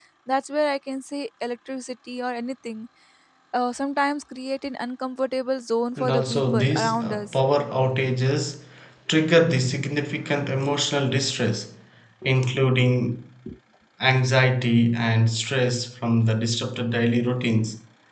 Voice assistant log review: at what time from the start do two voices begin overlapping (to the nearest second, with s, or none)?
6 s